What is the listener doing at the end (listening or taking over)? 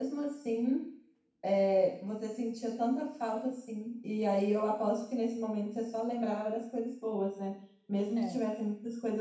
listening